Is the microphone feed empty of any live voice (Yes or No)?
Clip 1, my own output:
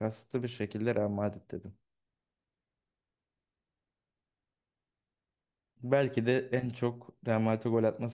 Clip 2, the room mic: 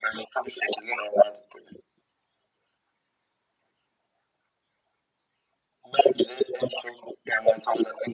Yes